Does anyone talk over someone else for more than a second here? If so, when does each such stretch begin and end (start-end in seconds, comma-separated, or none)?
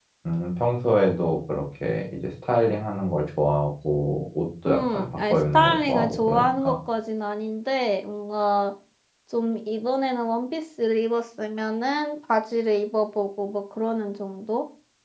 4.7-6.8